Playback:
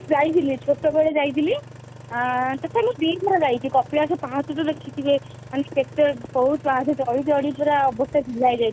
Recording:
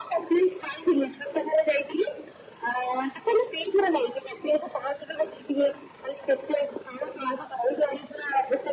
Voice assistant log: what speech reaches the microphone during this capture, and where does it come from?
echo only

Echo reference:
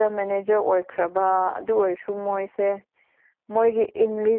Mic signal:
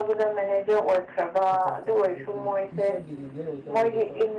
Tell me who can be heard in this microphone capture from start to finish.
both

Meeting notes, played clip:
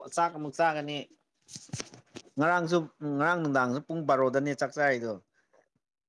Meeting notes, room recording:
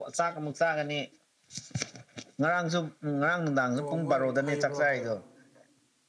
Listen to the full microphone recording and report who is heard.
both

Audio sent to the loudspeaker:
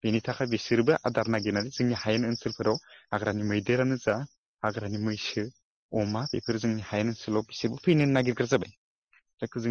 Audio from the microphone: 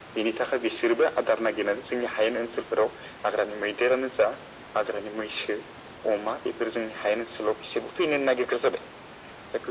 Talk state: echo only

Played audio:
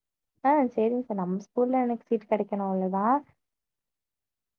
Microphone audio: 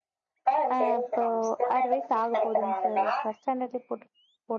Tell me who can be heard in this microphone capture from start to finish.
both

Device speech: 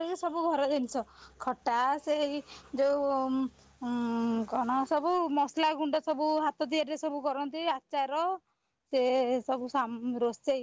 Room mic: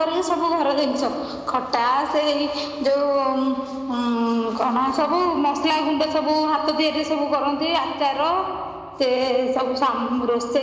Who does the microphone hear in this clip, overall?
echo only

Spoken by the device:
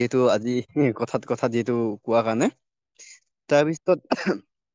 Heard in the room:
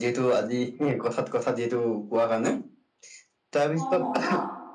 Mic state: both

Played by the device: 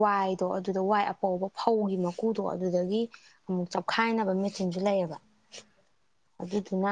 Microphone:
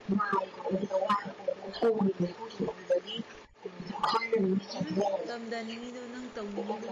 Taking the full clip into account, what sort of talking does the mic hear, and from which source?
both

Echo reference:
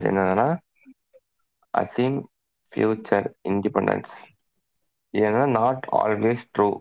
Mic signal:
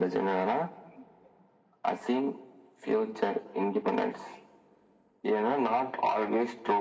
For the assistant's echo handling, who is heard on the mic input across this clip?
echo only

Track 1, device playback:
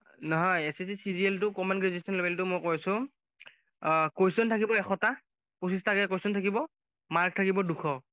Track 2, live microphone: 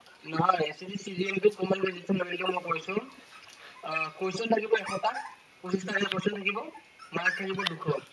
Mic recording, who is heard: echo only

